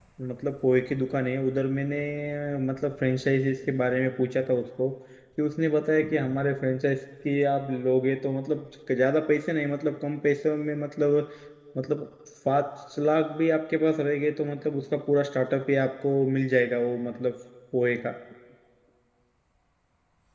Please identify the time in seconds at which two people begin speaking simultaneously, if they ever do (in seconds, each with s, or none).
none